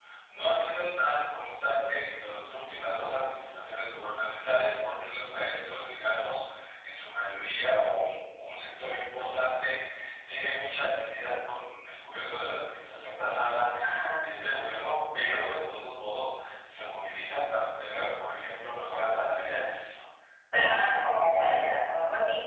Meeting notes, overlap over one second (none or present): none